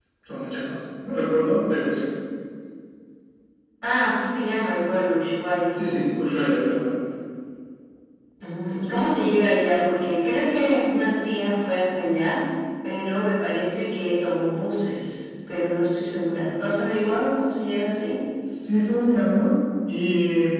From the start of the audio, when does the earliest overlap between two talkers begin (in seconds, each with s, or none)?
none